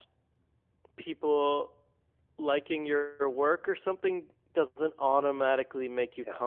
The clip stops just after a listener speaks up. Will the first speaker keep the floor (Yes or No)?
Yes